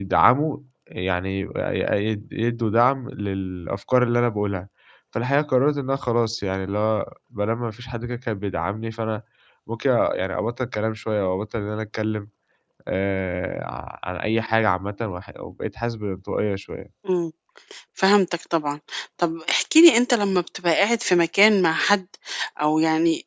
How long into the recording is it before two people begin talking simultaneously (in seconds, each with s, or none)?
none